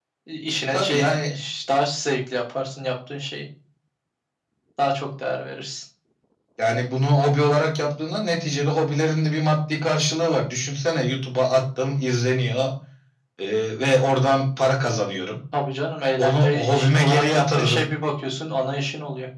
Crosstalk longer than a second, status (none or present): present